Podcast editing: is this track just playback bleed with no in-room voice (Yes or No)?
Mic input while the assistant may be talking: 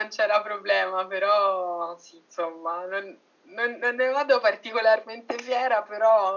Yes